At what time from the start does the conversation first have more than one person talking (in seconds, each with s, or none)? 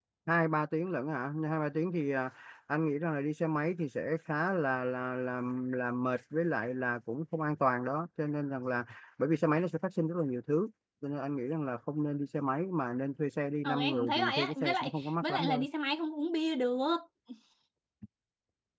13.6 s